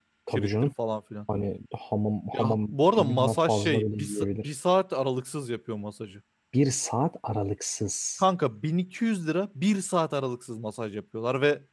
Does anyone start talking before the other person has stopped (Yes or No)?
Yes